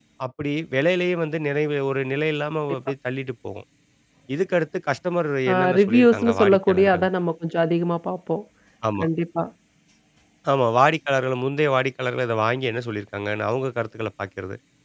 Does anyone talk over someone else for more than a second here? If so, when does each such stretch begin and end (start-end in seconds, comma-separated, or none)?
5.5-7.1